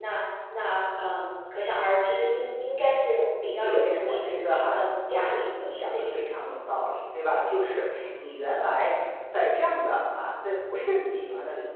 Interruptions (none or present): present